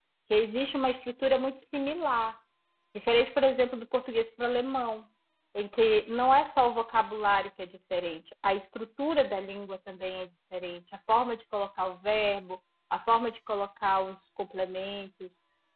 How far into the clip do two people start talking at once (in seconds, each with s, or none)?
none